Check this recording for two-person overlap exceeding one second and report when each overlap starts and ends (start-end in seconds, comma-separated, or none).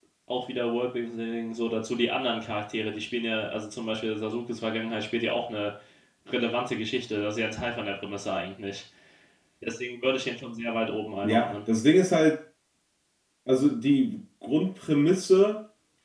none